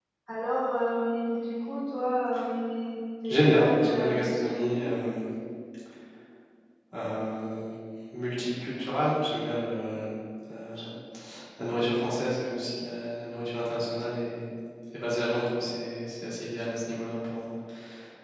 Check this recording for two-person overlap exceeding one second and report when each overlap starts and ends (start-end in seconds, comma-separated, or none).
3.3-4.8